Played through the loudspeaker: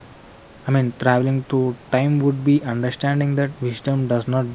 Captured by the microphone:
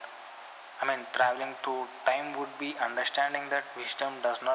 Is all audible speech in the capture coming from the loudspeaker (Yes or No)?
Yes